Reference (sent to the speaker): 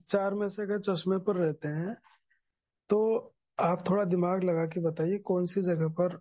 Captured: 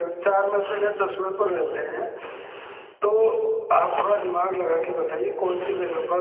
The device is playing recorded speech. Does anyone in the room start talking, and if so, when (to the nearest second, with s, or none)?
none